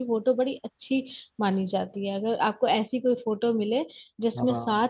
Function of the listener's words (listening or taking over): listening